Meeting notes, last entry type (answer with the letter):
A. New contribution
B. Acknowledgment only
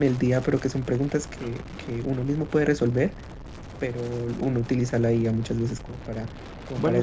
B